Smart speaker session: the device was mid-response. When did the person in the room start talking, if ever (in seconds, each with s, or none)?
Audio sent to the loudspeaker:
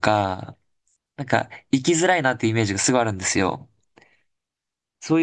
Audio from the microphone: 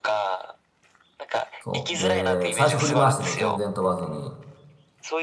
1.6 s